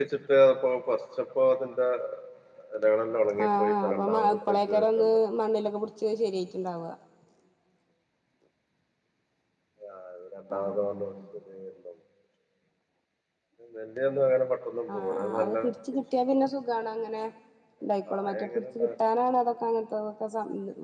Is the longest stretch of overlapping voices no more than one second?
No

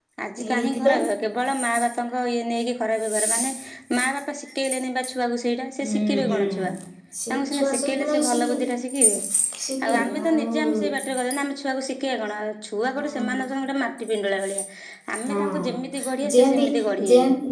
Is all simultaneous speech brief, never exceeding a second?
No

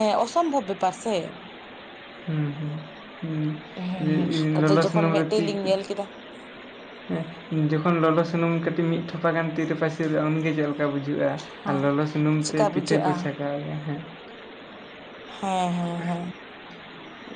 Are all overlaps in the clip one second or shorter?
No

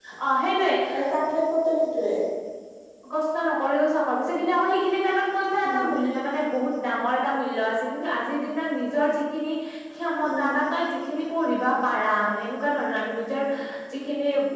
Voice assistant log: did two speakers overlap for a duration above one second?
No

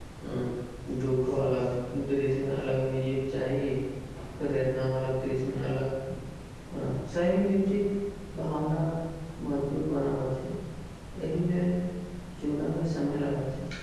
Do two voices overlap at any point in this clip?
No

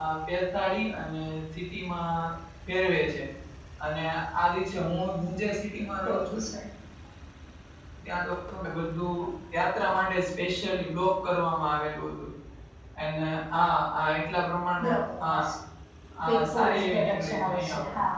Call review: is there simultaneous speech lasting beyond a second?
Yes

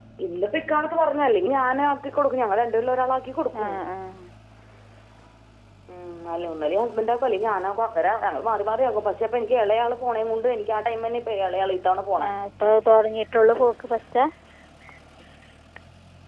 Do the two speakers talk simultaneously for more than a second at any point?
No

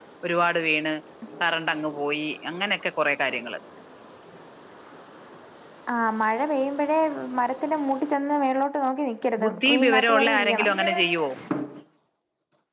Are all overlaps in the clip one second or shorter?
No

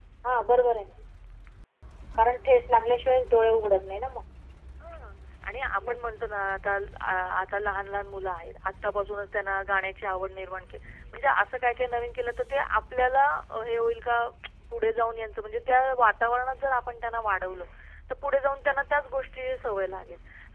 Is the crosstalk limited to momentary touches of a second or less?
Yes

